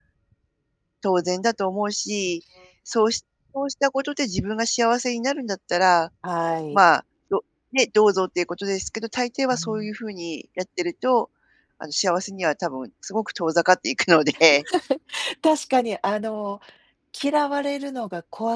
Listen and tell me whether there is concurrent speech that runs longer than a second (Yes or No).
No